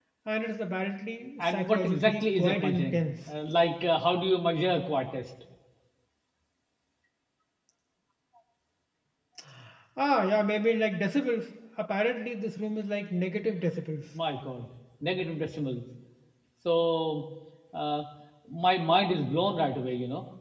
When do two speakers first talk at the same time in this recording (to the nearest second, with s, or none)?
1 s